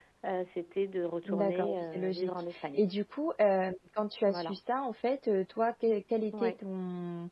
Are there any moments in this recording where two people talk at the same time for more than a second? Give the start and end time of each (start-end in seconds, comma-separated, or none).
1.2-2.8